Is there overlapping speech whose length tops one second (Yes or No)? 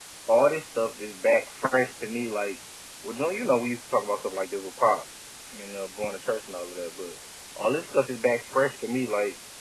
No